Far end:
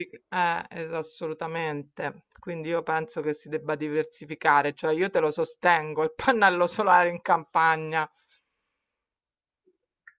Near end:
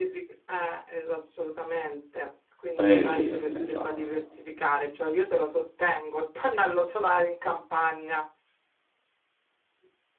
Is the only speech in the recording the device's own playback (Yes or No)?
No